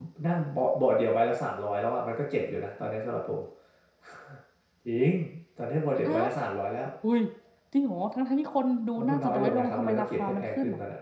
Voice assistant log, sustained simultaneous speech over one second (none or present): present